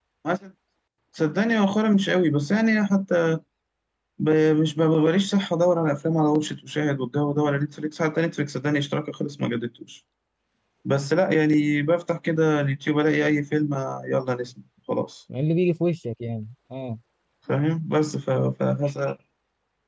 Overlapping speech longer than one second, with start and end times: none

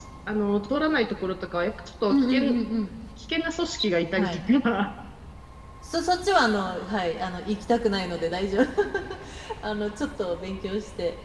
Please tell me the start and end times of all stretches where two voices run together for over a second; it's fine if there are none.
none

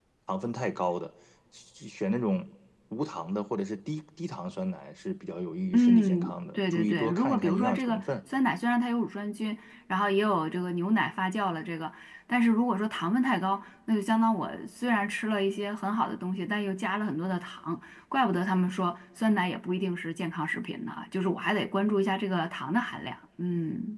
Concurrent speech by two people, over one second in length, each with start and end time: 5.7-8.1

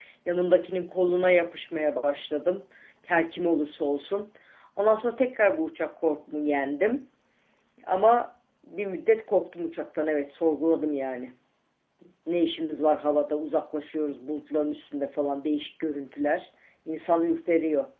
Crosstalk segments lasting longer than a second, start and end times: none

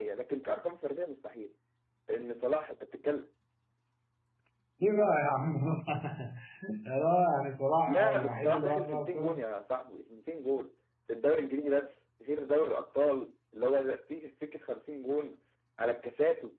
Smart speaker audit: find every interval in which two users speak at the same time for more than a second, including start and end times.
7.9-9.4

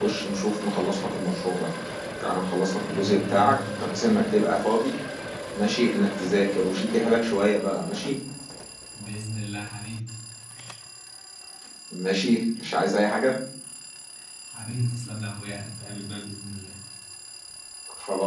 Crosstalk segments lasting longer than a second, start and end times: 2.8-4.1

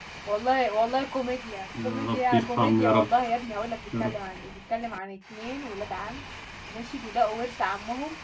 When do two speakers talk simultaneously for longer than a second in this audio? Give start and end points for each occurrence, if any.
1.8-3.1

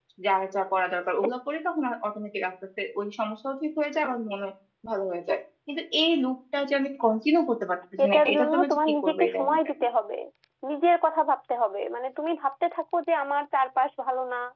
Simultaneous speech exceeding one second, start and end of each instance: 8.1-9.9

